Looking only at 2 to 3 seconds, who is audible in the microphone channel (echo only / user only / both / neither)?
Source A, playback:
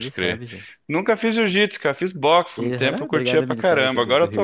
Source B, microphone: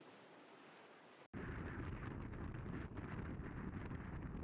neither